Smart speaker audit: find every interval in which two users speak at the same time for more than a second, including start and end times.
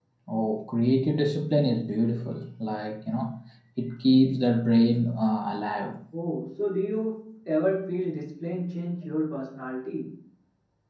none

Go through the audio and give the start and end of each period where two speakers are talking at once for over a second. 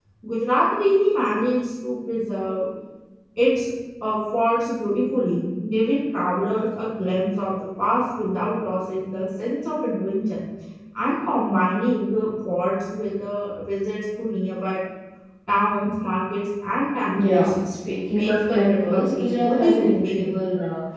18.1-20.3

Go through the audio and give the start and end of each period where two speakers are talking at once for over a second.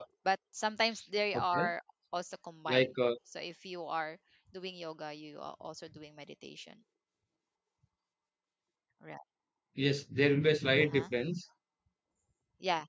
none

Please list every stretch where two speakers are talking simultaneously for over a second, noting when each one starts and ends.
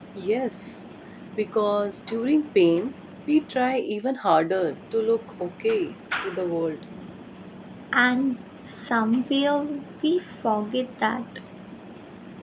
none

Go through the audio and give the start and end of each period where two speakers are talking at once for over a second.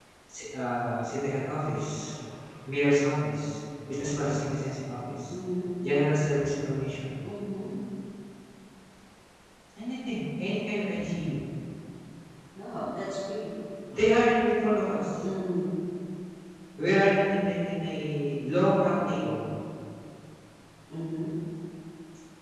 none

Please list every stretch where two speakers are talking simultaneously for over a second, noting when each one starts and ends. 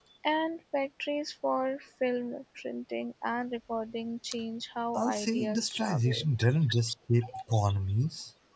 5.0-6.3

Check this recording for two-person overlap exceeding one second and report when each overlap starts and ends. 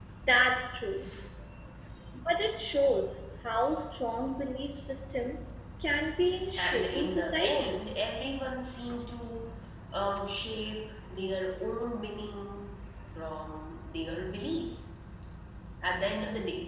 6.6-8.0

